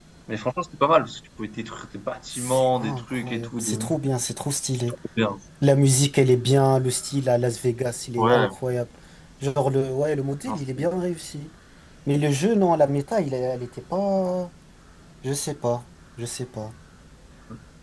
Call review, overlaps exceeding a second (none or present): present